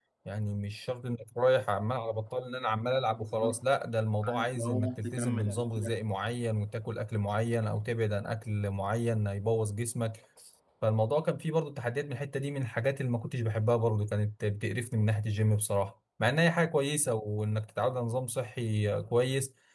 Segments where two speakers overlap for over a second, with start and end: 4.2-6.0

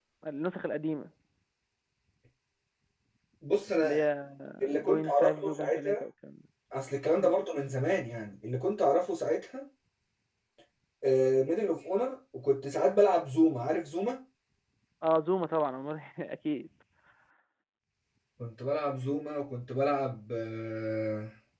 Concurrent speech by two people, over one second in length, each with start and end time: 4.8-6.0

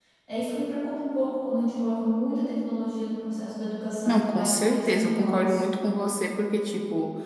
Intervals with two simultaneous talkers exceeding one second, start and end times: 4.0-5.6

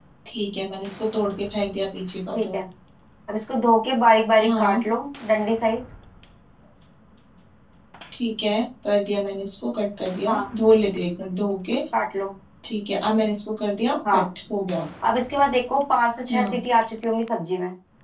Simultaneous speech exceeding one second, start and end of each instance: none

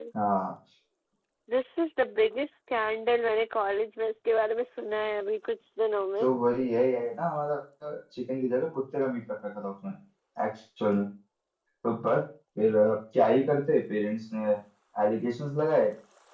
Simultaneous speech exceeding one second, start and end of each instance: none

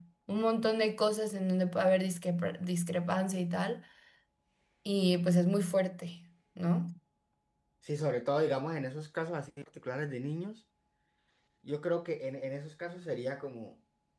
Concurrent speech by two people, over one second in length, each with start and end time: none

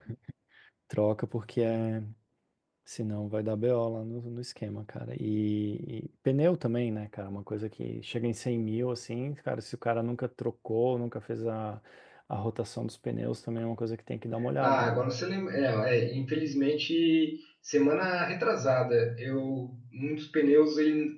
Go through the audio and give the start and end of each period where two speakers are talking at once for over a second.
none

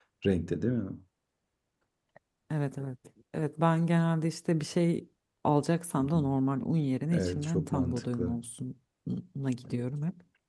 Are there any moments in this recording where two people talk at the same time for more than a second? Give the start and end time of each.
7.1-8.4

